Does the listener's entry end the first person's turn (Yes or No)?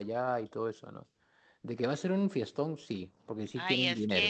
Yes